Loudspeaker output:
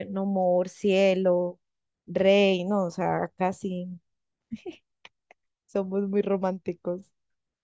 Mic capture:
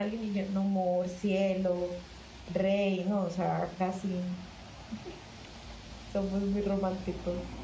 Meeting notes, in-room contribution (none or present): none